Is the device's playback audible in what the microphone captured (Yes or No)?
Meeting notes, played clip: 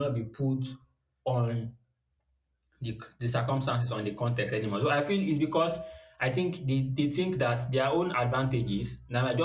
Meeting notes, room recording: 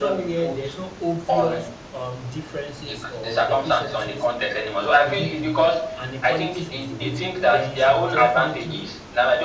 Yes